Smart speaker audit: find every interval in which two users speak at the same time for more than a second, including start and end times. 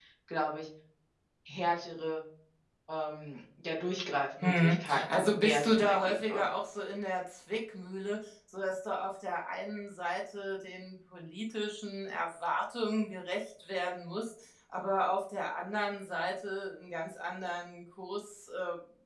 4.4-6.5

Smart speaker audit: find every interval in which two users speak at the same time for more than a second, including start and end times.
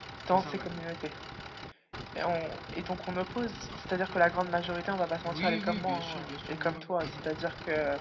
5.2-7.0

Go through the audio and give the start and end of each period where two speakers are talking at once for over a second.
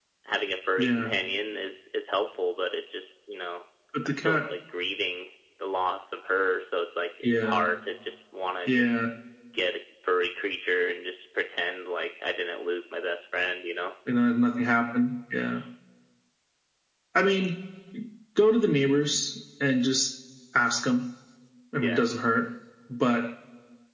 none

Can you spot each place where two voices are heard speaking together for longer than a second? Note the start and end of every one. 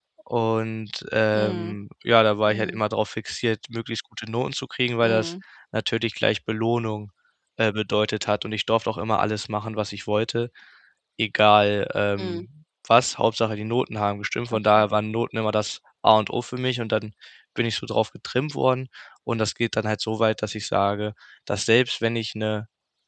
none

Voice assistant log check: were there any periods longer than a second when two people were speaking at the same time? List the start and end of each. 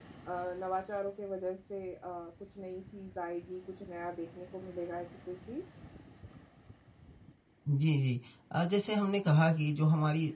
none

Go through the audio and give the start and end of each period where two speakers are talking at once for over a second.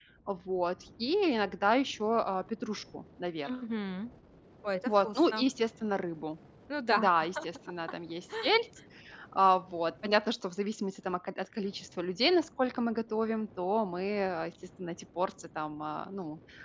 none

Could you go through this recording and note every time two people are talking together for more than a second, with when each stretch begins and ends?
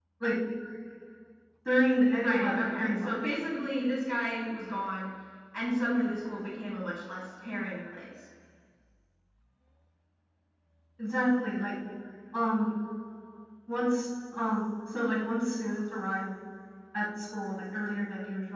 2.1-3.4

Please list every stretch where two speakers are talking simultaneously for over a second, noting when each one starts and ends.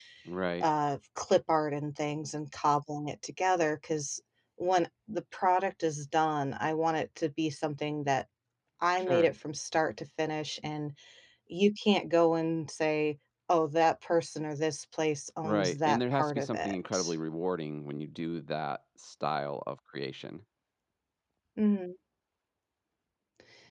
15.4-17.1

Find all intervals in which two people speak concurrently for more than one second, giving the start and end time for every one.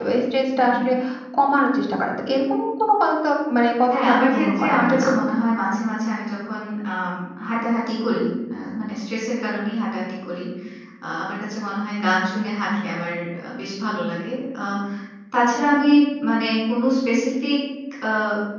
3.9-5.1

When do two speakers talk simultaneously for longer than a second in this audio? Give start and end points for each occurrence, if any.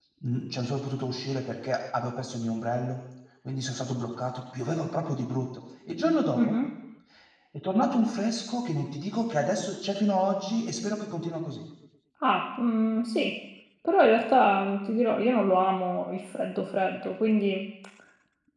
none

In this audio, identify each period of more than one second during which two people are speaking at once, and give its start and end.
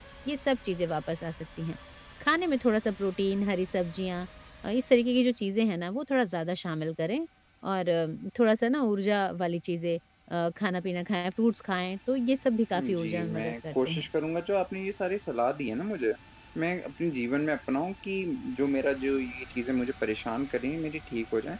12.8-14.1

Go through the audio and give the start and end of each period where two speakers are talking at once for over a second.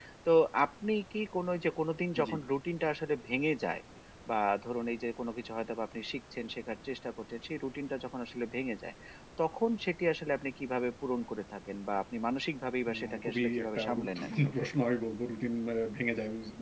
13.0-14.3

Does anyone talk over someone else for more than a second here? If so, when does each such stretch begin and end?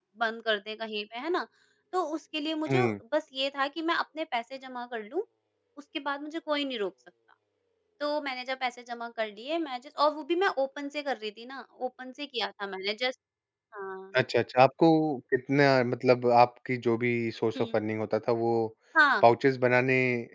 none

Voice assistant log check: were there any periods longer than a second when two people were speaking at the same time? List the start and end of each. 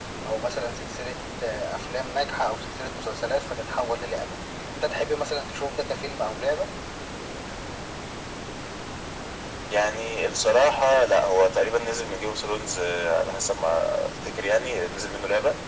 none

